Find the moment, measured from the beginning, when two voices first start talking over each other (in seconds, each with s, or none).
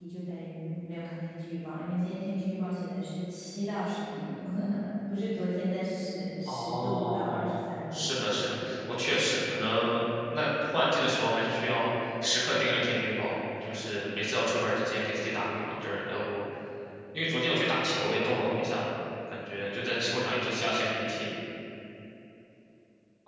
6.5 s